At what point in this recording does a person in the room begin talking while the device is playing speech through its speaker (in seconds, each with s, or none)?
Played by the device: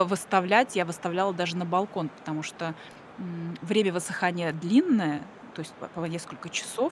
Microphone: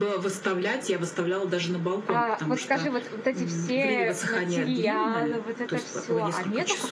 2.1 s